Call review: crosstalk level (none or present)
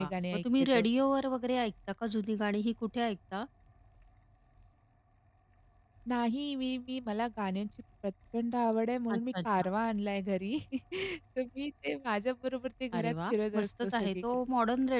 present